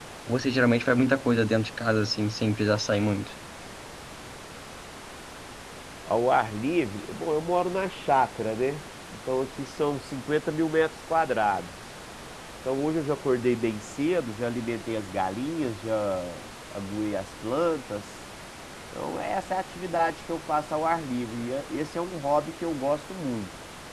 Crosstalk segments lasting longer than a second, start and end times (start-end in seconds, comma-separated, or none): none